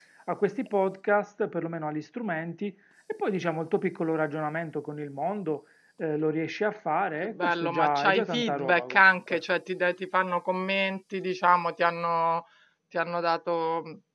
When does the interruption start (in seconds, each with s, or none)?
7.2 s